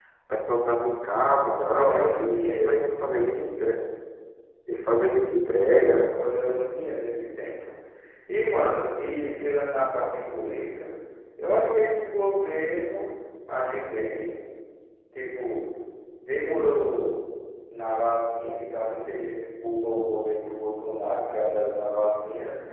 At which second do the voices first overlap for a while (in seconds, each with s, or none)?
1.4 s